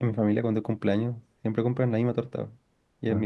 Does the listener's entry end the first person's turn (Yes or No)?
No